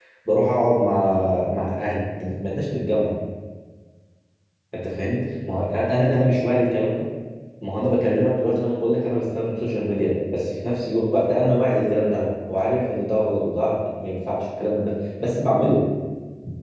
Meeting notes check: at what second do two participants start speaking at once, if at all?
none

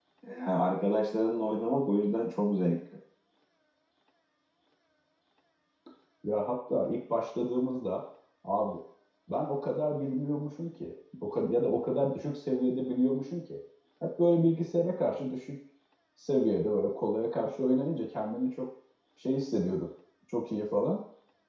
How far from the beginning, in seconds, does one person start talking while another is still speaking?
none

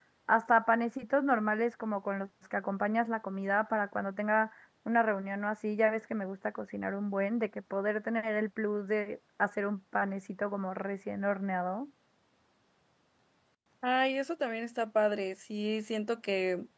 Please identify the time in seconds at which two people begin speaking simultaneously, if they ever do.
none

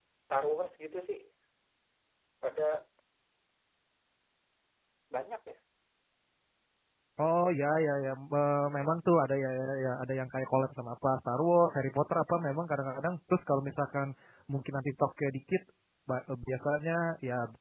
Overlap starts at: none

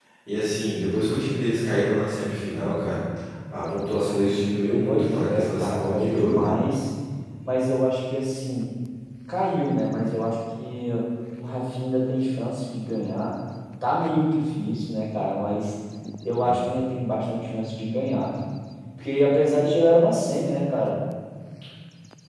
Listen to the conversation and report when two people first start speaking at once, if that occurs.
4.8 s

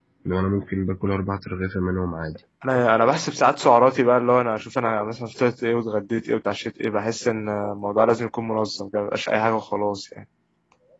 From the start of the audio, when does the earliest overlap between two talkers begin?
none

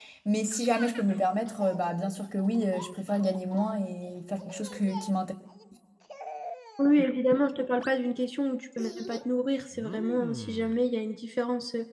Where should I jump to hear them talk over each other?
none

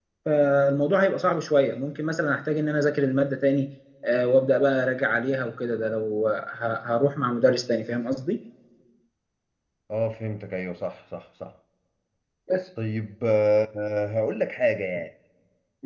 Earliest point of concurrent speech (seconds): none

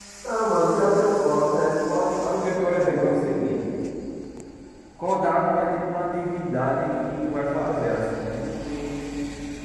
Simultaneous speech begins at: 2.3 s

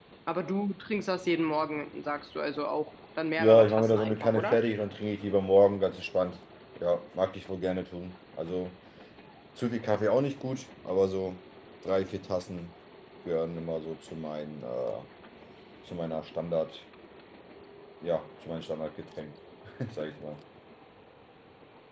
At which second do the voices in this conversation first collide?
3.4 s

